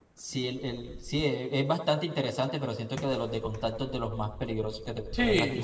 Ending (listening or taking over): taking over